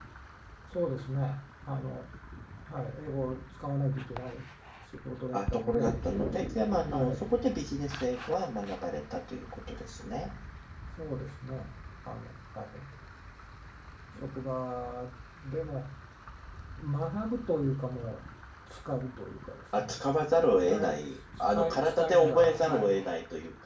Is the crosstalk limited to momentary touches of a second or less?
No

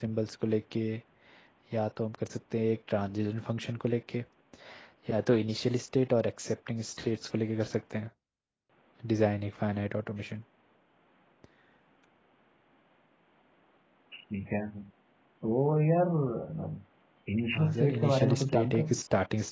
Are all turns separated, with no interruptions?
No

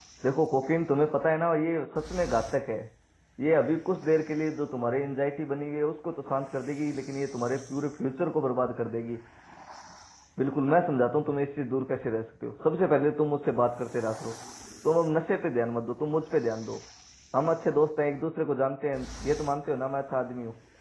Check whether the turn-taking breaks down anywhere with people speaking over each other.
No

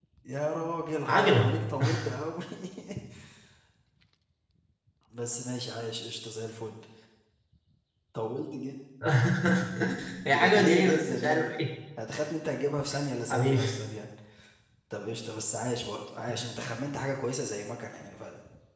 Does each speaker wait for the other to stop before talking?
No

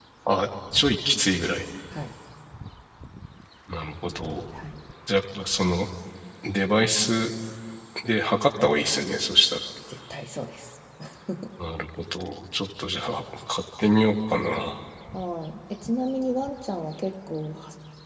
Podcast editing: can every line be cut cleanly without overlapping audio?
Yes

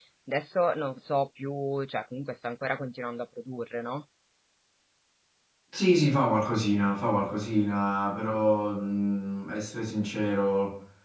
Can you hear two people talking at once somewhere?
No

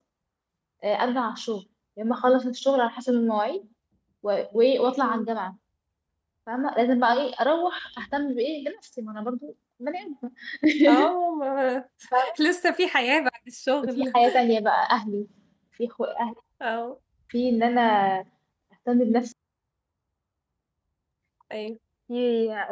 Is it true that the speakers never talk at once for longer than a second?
Yes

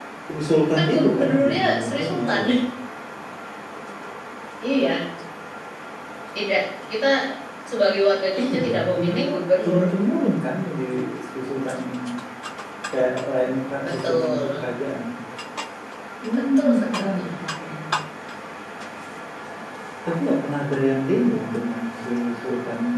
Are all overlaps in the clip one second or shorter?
No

